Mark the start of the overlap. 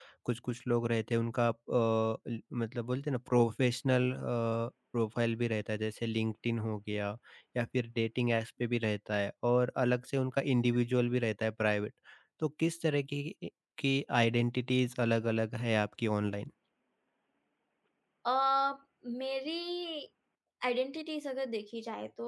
none

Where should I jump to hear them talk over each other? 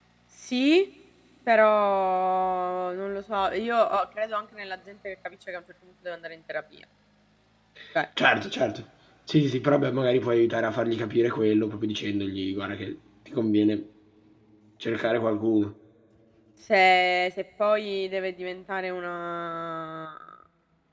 none

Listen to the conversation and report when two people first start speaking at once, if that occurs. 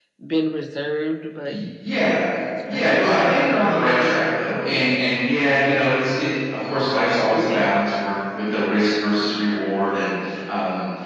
2.7 s

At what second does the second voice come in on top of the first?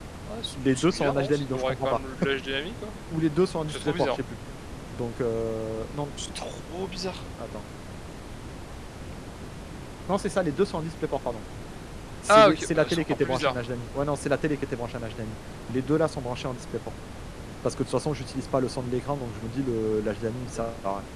0.7 s

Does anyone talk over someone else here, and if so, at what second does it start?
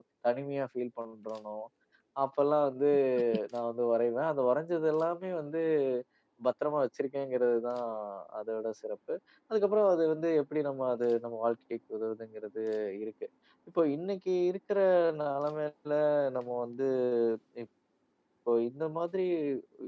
none

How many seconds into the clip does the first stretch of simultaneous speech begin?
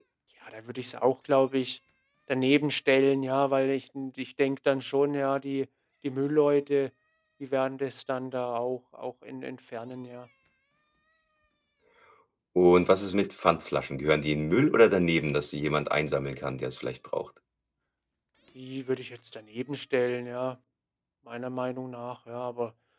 none

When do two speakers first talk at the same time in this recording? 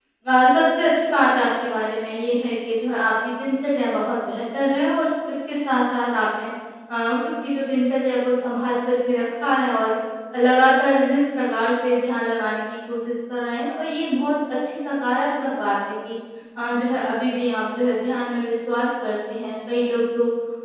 none

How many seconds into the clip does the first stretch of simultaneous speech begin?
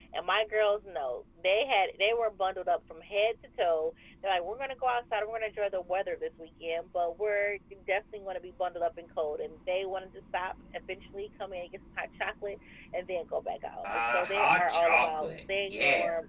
13.8 s

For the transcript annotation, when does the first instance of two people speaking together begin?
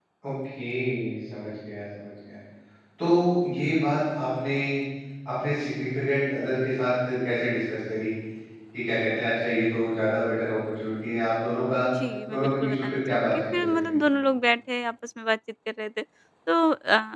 12.3 s

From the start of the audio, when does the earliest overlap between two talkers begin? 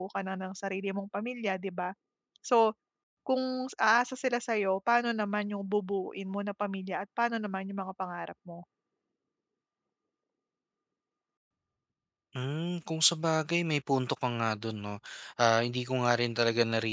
none

